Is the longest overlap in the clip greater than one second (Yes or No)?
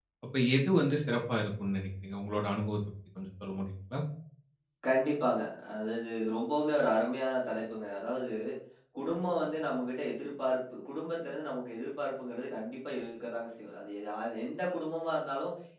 No